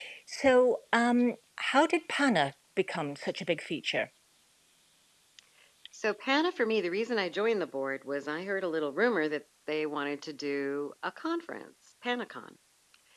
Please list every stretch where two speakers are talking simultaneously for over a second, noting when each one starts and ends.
none

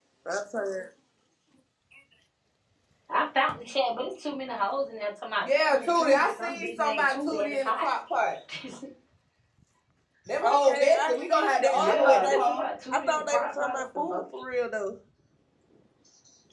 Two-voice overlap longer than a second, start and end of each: 5.4-7.9, 10.4-14.2

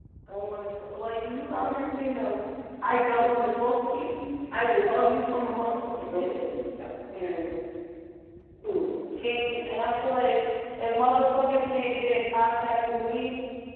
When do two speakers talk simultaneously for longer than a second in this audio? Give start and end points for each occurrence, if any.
none

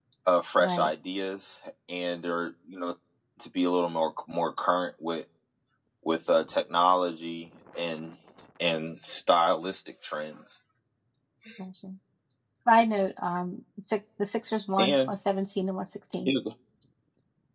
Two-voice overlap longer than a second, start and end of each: none

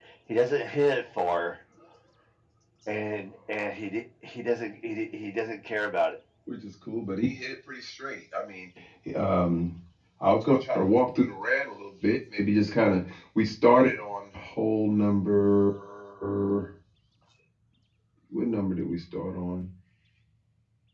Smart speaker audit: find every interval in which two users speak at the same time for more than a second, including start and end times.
none

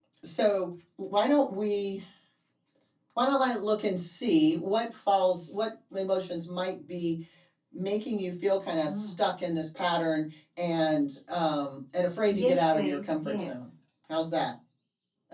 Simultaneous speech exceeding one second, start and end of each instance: 12.3-13.6

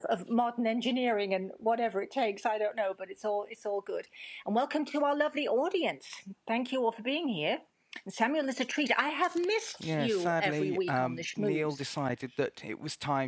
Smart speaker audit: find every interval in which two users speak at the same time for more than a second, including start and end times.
9.8-11.8

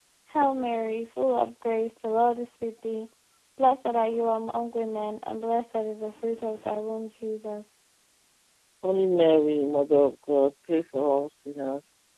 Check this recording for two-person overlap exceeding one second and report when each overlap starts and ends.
none

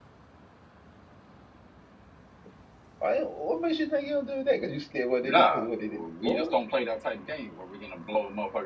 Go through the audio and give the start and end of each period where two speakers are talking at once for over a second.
5.2-6.6

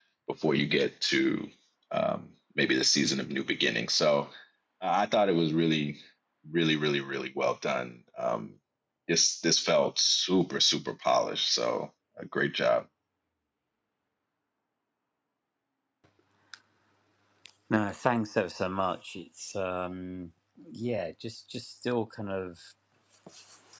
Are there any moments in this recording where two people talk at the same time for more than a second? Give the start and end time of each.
none

